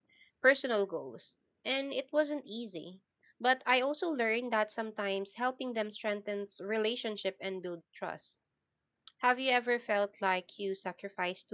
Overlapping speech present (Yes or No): No